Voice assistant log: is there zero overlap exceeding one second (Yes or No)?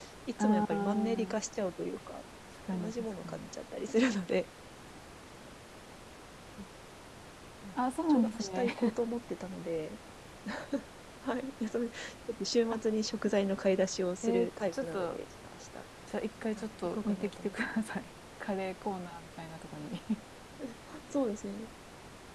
No